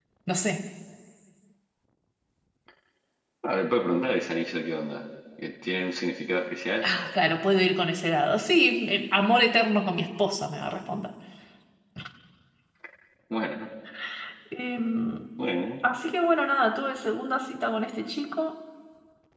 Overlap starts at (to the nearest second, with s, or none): none